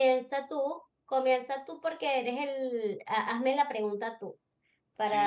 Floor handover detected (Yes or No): Yes